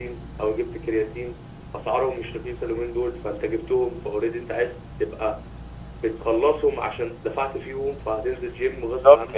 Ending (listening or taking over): taking over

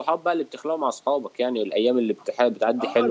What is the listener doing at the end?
taking over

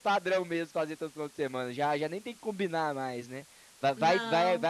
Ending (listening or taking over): listening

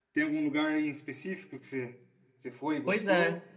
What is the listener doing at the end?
taking over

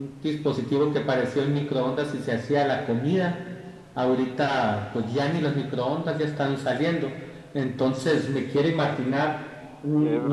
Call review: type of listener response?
listening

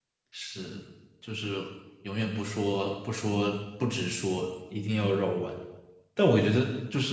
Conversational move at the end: listening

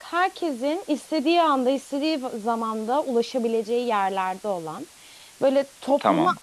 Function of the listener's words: listening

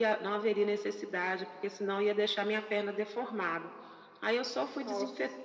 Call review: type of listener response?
listening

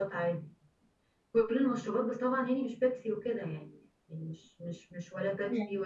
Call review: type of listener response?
listening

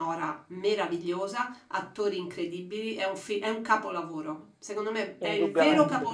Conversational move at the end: listening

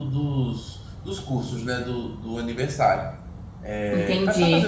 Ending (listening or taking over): taking over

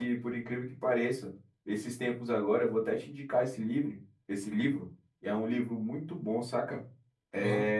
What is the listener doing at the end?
listening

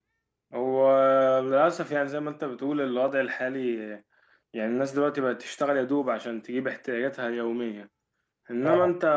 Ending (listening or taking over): listening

